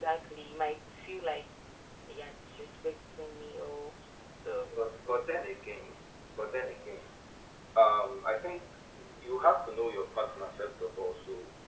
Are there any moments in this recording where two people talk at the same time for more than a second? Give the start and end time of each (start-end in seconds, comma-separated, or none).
none